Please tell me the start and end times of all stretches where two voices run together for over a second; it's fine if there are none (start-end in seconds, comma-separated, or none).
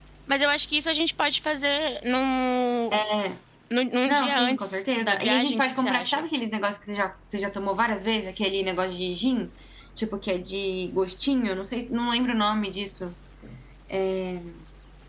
4.1-6.2